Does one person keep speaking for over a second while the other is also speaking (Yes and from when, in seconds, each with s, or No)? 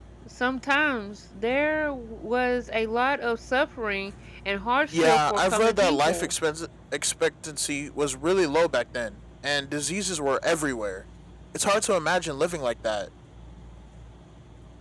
Yes, from 4.9 s